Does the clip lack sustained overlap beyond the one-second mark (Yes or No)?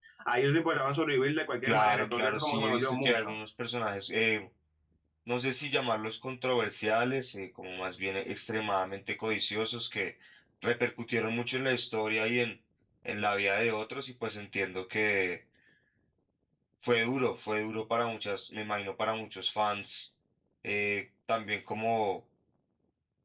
No